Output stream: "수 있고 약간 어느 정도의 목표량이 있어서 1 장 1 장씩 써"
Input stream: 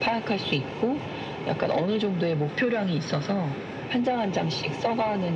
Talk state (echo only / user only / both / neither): echo only